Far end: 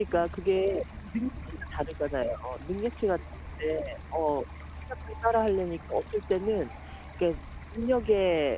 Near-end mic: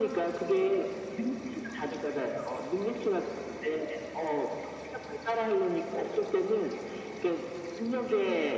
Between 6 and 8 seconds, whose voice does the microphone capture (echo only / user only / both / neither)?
echo only